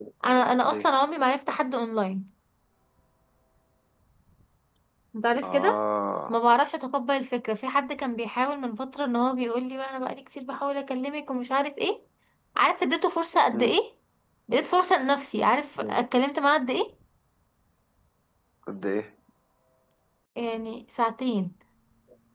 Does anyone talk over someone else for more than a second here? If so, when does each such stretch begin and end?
none

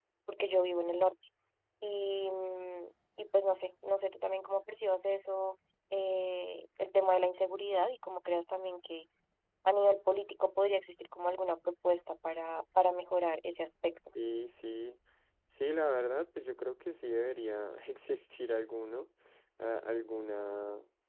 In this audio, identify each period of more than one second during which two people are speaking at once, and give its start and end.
none

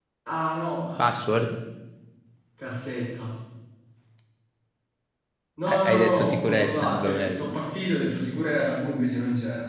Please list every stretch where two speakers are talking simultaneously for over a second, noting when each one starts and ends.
5.7-7.5

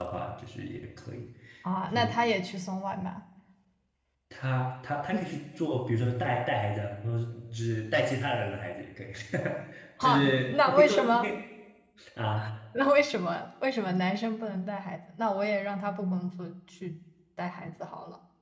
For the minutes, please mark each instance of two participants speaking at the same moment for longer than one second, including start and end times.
10.0-11.3

